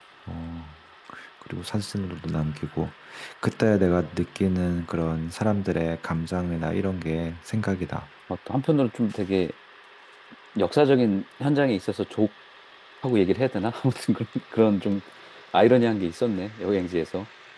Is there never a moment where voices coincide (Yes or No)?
Yes